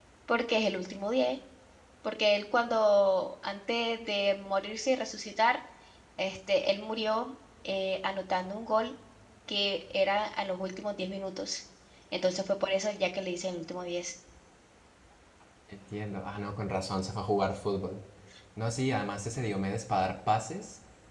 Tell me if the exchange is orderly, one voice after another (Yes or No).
Yes